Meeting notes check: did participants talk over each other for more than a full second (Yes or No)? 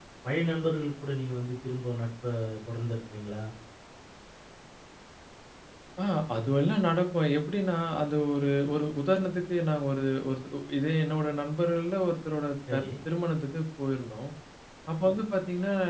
No